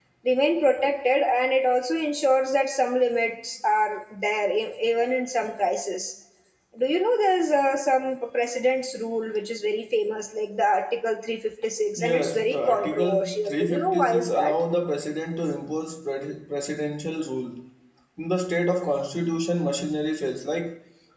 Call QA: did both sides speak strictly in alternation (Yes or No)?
No